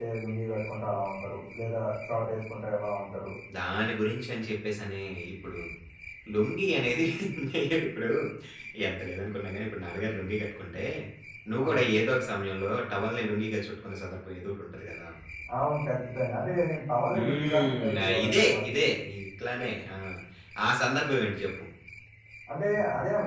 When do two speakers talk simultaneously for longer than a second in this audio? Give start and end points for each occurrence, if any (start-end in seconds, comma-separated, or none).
17.2-18.6